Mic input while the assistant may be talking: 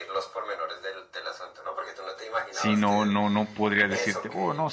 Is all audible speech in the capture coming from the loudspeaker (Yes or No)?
No